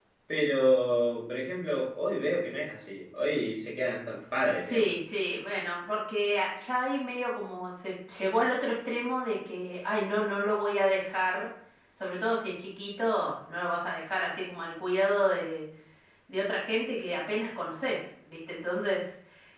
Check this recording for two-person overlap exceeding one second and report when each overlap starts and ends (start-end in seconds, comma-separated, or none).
none